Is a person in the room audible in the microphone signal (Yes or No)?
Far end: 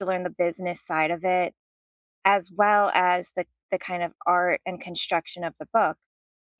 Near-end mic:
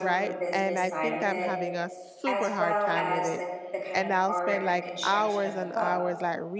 Yes